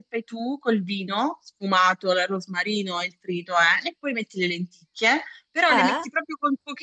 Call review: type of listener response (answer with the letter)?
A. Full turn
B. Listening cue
B